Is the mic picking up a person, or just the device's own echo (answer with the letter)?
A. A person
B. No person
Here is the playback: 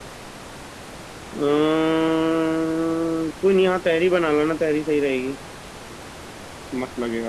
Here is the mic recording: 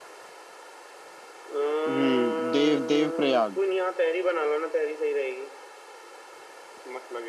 A